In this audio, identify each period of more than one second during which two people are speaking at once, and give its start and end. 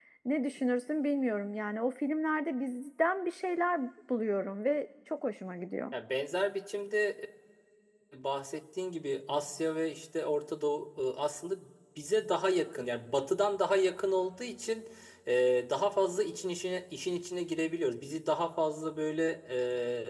none

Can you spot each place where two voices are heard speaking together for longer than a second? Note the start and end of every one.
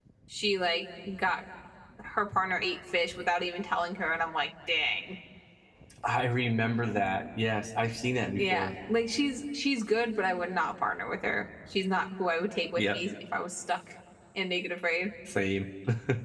none

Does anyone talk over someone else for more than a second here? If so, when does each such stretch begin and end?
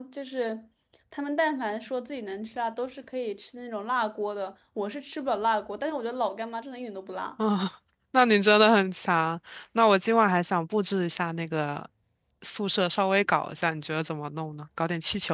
none

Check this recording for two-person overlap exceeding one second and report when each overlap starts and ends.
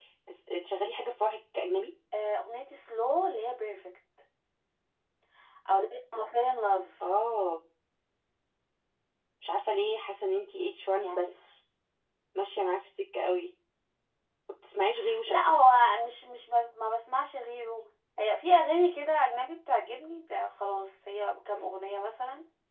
none

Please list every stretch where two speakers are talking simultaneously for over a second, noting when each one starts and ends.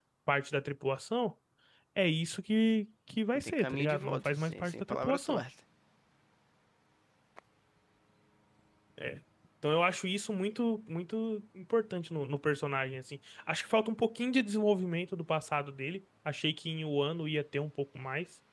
3.3-5.4

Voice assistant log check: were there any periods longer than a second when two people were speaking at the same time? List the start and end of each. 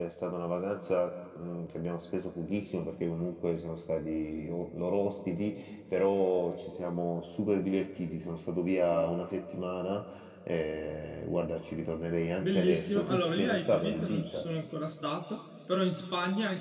12.4-14.4

